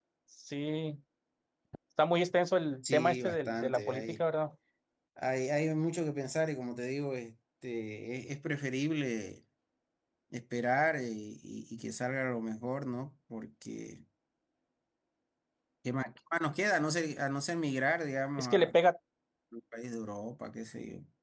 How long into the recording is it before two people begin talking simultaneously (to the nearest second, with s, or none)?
3 s